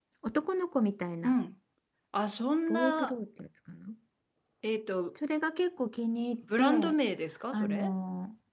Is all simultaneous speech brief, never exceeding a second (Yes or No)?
Yes